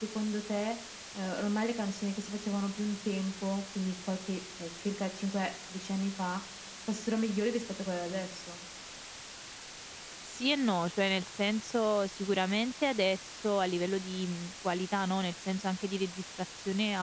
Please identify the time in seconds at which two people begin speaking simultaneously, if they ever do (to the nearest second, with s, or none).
none